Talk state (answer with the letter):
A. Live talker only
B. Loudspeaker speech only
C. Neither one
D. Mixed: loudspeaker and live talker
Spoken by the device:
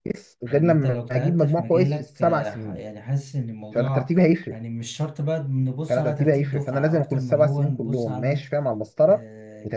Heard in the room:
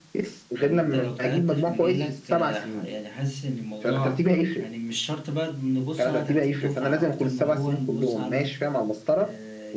B